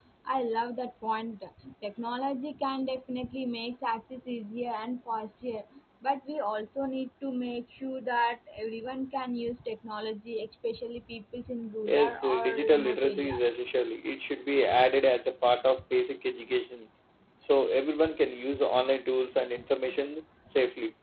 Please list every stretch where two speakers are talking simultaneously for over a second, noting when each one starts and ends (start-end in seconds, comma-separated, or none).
11.9-13.5